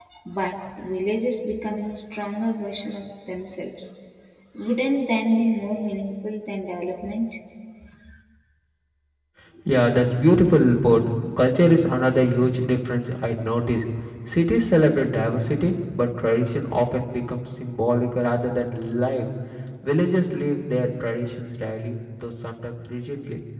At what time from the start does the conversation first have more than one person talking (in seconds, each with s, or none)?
none